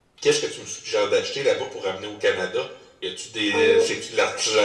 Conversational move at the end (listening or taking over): listening